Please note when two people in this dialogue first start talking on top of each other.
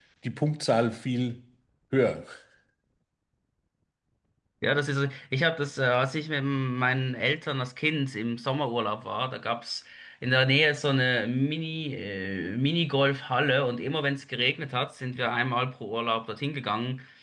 none

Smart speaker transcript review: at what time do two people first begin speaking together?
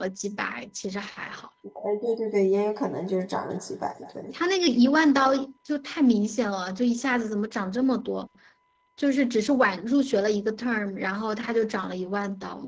none

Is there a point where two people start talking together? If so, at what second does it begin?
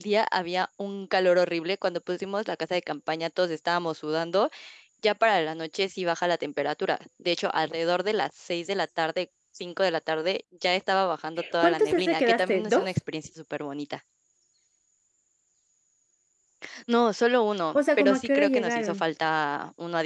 12 s

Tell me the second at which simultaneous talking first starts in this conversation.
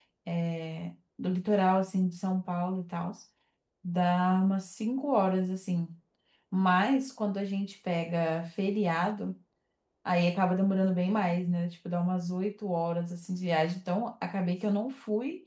none

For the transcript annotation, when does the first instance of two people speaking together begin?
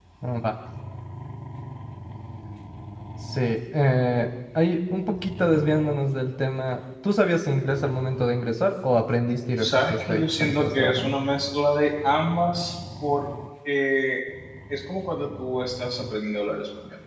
10 s

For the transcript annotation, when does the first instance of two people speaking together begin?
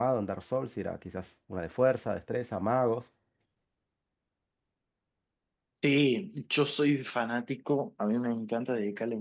none

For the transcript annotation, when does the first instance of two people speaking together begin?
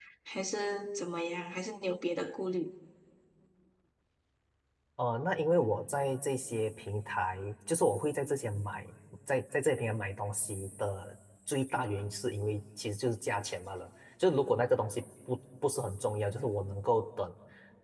none

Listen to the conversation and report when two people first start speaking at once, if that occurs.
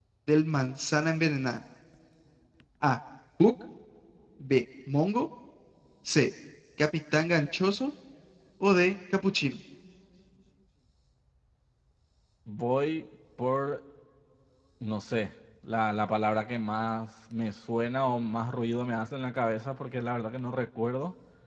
none

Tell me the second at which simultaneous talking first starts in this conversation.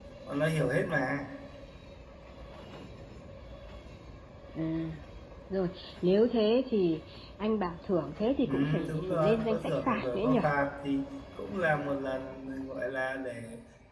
8 s

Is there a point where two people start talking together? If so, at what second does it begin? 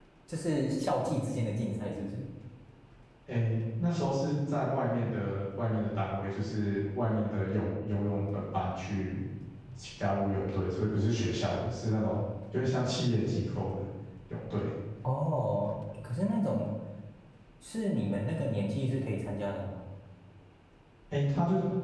none

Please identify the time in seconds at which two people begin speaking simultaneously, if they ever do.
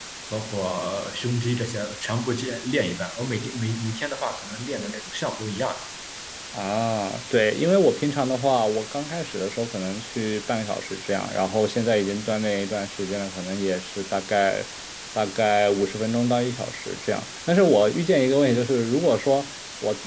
none

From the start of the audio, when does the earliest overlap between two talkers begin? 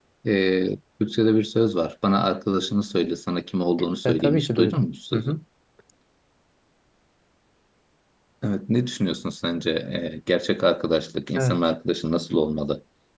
4 s

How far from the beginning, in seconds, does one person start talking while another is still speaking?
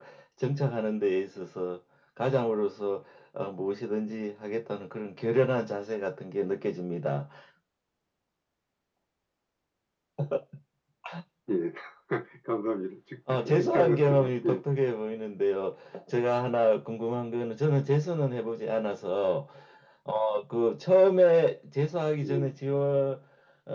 13 s

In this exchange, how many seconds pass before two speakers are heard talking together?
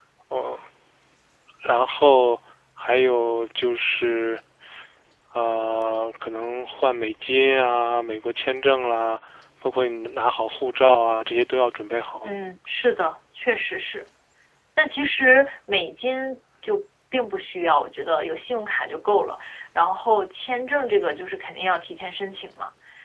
none

